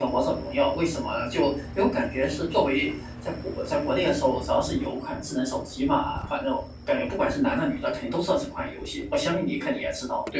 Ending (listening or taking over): taking over